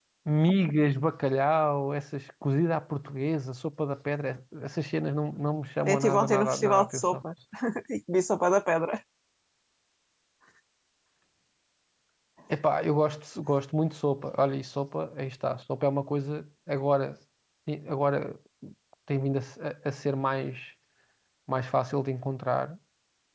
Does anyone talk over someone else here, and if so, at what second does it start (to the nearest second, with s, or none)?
6 s